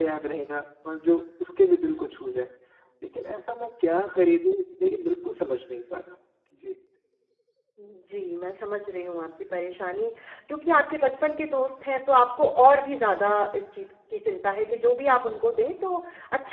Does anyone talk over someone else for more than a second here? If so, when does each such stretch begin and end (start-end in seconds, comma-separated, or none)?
none